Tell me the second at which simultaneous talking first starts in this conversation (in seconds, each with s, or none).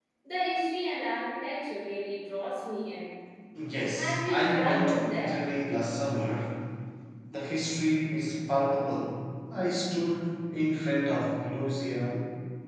4.0 s